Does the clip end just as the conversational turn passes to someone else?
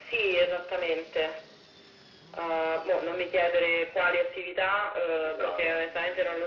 No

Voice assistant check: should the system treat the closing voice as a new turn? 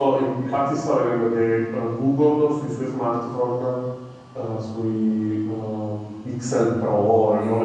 No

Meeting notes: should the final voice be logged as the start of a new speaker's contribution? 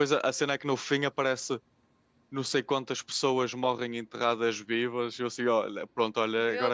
No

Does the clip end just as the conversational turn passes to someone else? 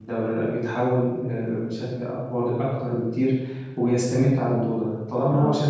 No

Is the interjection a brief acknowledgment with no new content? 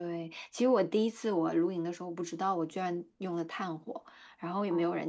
Yes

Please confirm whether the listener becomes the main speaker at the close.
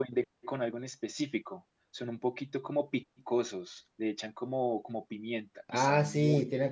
Yes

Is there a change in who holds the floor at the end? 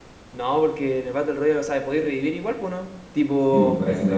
Yes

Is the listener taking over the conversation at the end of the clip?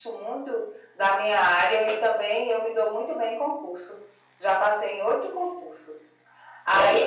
No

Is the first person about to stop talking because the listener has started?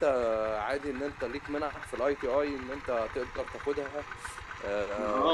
Yes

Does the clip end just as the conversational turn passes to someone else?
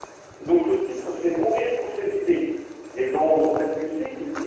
No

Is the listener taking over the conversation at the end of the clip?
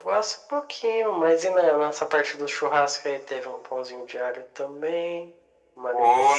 Yes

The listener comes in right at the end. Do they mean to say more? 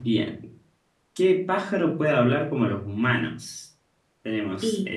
No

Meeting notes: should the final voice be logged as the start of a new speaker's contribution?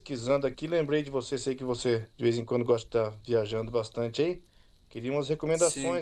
No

